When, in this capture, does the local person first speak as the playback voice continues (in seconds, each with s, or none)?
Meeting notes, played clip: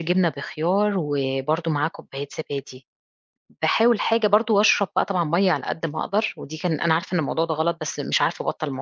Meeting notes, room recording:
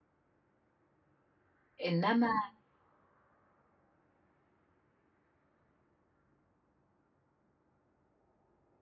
1.8 s